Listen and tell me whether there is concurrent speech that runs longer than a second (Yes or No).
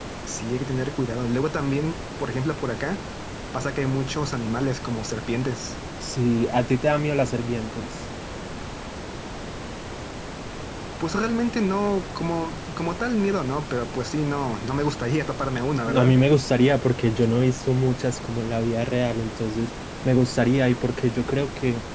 No